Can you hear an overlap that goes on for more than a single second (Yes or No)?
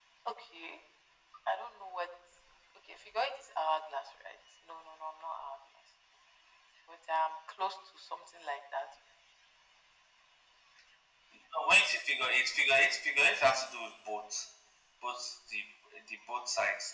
No